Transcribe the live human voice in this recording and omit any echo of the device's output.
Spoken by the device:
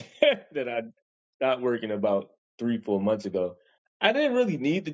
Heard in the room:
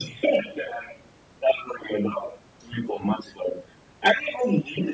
none

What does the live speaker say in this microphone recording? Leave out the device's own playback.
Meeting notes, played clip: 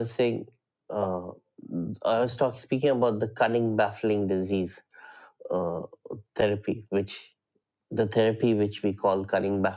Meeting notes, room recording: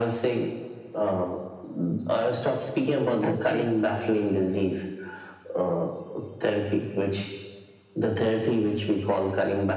I see.

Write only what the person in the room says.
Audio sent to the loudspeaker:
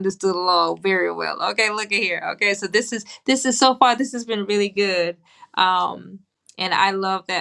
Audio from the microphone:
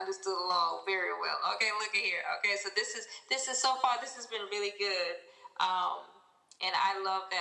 none

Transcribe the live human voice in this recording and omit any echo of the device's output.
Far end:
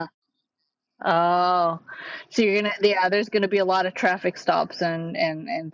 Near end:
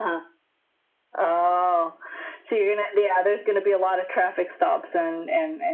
none

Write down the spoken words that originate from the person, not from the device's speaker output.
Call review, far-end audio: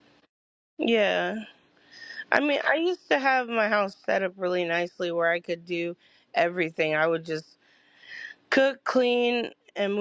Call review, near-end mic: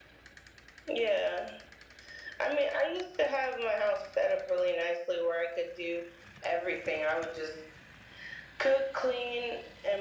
none

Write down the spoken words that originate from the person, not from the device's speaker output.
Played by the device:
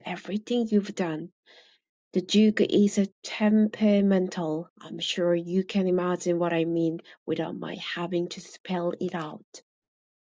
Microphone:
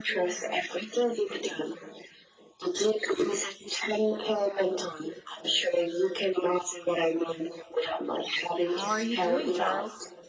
How are you doing, Charles?

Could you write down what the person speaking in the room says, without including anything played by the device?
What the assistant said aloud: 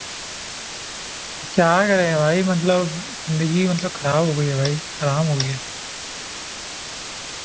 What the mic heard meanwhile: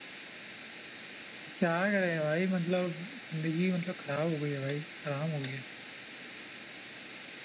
none

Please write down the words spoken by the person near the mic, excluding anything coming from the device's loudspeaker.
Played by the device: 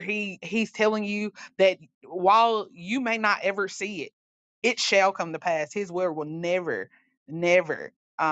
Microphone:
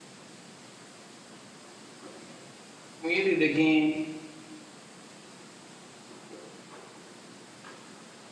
muted again

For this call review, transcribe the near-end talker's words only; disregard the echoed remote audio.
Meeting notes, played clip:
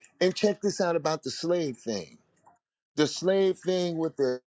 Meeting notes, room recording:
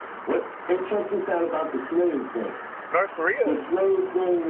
North Korea.

